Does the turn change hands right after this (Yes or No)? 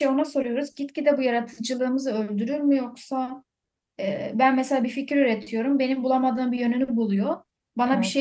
No